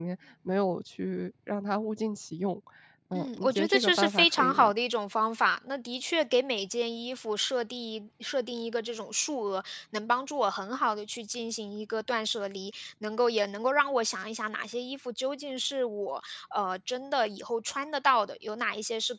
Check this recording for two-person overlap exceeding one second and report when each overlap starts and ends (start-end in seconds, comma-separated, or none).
3.1-4.7